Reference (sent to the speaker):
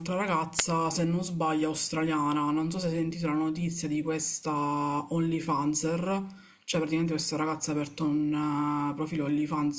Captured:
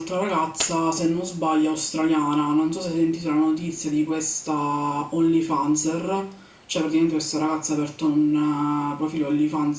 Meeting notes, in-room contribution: none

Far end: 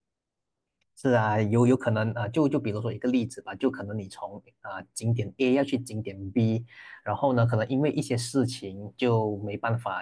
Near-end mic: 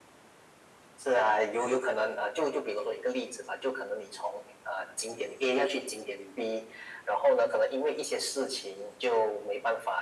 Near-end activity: none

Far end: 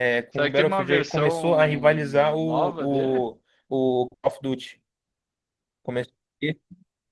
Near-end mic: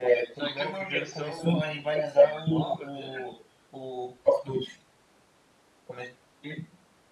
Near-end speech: none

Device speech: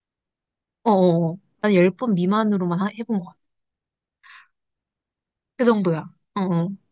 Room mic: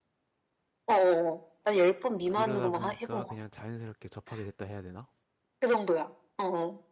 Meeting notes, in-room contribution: present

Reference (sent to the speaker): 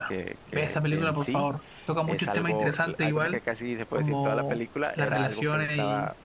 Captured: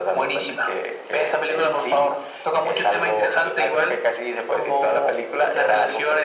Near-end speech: none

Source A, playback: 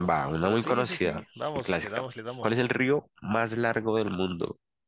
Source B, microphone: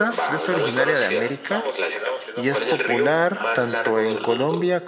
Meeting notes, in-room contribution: present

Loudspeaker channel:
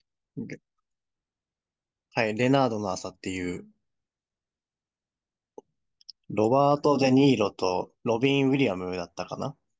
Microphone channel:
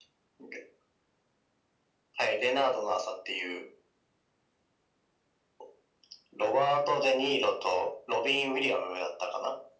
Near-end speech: none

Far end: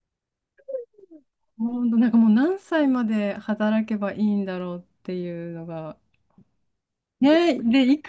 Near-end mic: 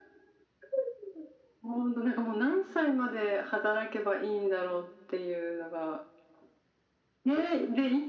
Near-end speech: none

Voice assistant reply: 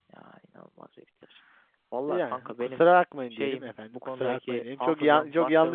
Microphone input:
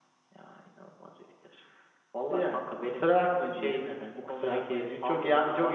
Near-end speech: none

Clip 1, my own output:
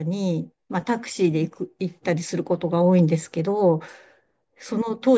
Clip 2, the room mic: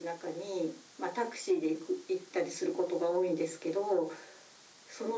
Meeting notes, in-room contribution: none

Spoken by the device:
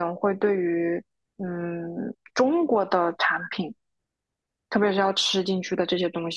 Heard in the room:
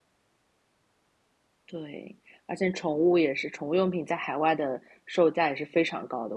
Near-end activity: present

